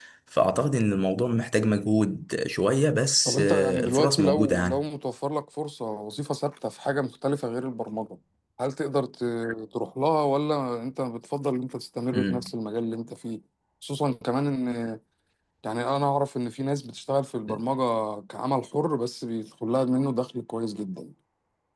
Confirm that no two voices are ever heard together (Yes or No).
No